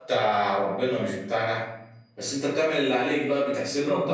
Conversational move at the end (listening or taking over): taking over